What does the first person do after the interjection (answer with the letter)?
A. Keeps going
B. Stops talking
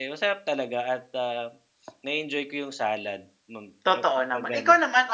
B